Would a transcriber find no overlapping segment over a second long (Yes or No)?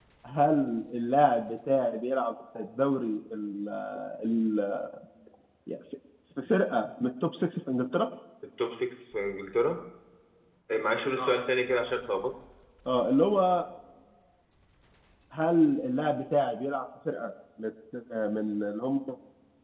Yes